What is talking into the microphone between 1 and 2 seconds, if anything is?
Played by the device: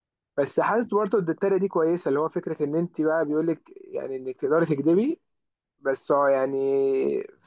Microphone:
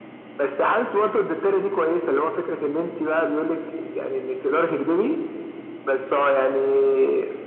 echo only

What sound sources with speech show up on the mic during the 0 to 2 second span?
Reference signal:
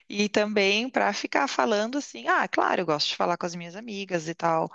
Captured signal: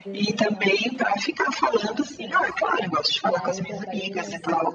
both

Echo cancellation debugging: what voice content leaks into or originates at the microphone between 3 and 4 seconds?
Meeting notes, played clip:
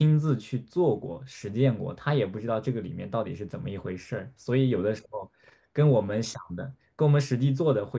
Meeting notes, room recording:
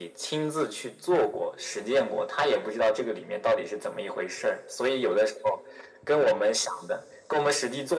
echo only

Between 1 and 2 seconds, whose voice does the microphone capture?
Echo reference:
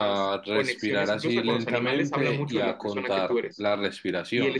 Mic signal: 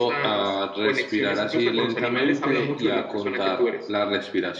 echo only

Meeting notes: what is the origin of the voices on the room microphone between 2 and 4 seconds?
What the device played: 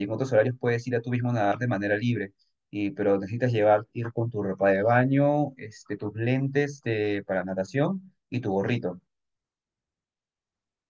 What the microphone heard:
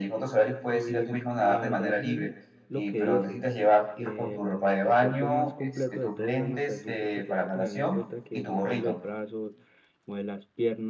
both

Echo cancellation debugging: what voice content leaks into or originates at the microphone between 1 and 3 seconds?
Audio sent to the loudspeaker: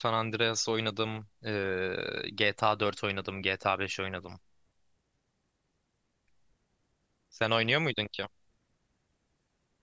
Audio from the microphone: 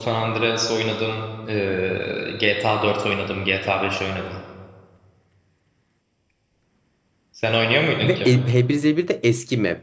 echo only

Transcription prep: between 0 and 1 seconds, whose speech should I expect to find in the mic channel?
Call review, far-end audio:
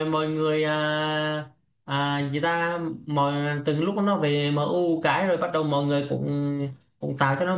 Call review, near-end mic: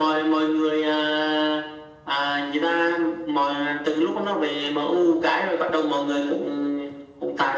echo only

